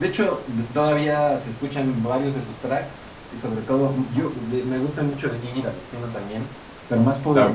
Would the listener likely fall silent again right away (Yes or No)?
No